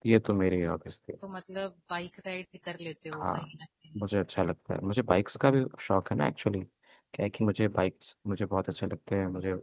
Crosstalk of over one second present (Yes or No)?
No